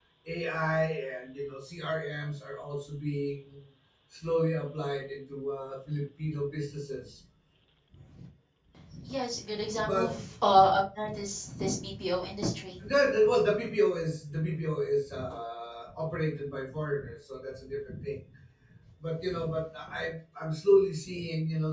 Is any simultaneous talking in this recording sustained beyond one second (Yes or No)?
No